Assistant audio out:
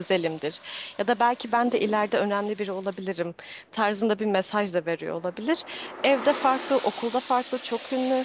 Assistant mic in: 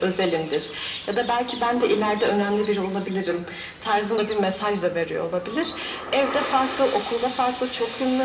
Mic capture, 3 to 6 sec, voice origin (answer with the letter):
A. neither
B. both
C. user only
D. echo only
D